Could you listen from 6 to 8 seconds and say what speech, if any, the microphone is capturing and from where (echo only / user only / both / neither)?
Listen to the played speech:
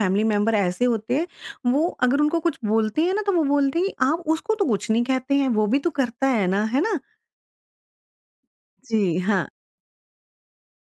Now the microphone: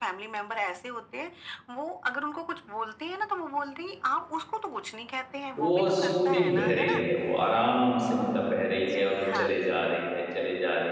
both